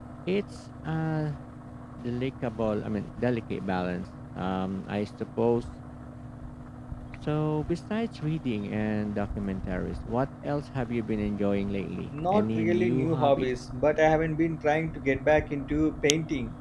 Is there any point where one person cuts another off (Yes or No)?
Yes